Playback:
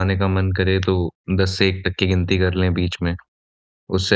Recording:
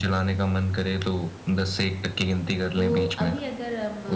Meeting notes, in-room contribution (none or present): present